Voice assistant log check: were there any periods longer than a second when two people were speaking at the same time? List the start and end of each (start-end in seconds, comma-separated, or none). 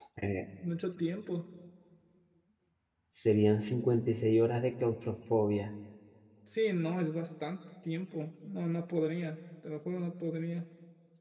none